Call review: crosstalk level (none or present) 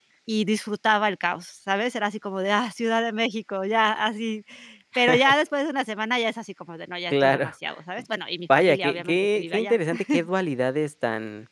present